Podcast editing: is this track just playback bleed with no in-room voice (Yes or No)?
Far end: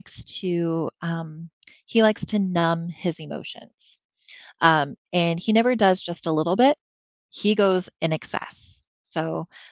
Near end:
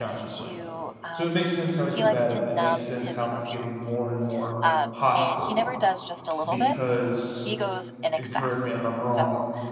No